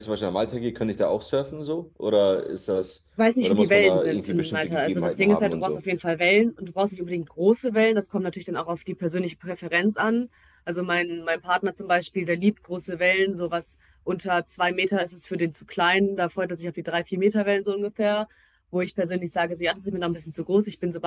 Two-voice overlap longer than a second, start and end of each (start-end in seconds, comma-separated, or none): 3.4-5.8